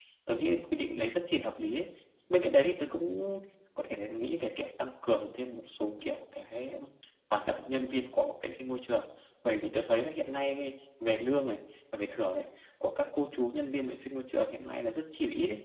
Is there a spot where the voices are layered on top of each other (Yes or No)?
No